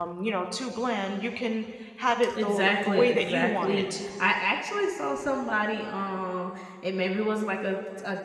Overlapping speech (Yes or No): Yes